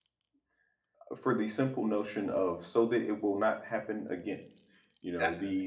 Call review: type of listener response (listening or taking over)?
listening